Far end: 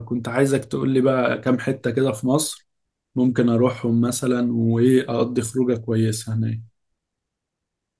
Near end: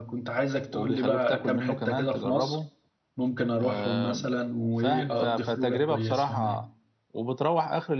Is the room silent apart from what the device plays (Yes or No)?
No